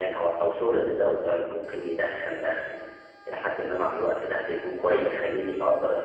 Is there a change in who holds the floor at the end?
No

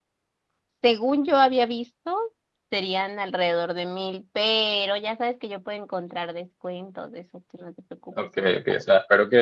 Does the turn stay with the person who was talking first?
No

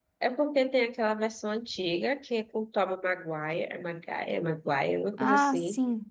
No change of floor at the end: No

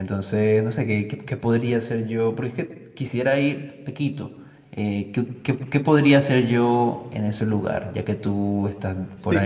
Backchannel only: No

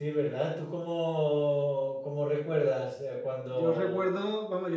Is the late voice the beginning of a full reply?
Yes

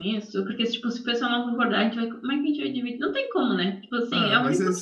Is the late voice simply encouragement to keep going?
No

